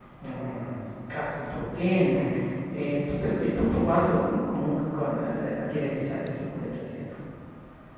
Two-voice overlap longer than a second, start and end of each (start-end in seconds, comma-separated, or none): none